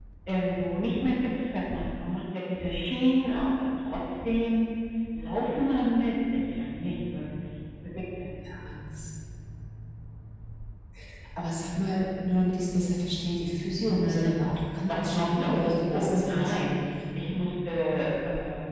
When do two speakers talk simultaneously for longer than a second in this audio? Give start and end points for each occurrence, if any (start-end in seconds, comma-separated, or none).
14.9-16.7